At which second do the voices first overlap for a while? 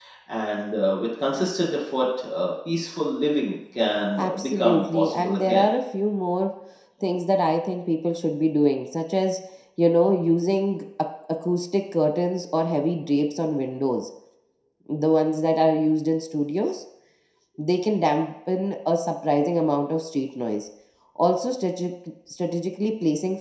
4.1 s

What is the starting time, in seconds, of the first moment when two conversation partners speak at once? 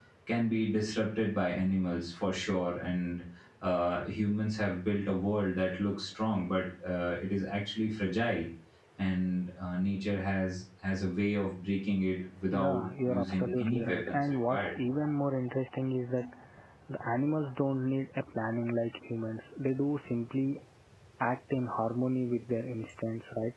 12.5 s

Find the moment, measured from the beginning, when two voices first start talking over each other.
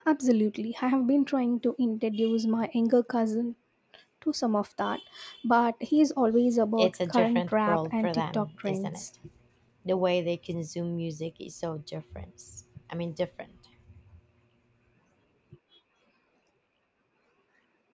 6.8 s

